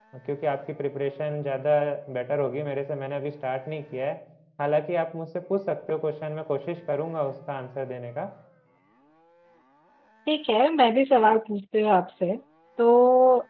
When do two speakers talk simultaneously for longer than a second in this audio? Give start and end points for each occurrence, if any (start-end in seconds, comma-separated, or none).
none